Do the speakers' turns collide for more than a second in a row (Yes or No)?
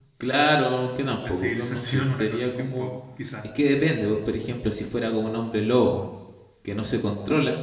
Yes